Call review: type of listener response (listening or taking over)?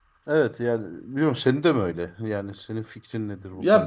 taking over